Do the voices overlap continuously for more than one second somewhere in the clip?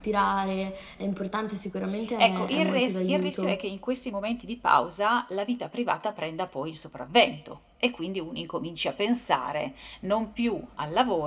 Yes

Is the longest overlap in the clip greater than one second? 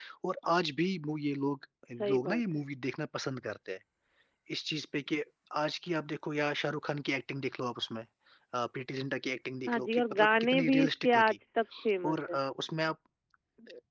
Yes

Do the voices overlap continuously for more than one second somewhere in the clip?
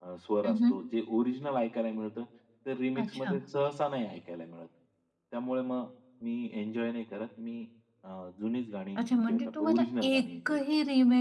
Yes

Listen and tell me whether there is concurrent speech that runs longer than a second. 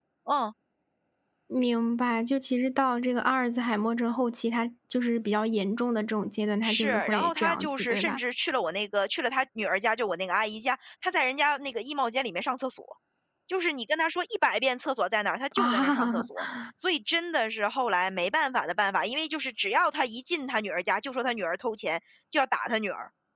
Yes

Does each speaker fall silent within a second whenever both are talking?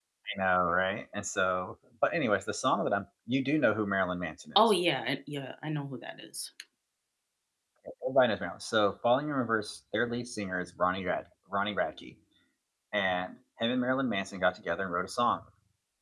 Yes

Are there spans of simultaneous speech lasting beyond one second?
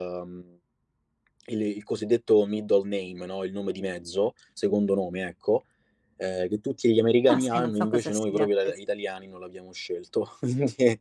Yes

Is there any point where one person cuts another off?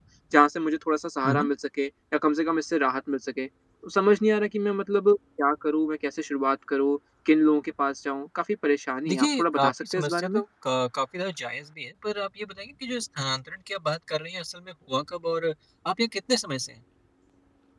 Yes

